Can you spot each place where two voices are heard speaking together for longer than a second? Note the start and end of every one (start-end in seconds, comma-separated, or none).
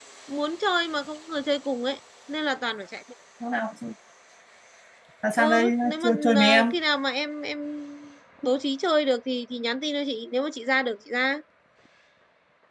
5.4-6.7